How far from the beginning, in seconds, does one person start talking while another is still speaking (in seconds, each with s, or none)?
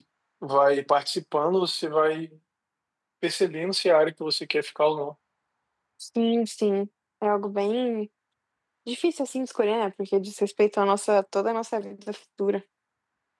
none